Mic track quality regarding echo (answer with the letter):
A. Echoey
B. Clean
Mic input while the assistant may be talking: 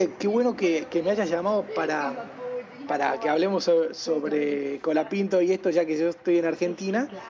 A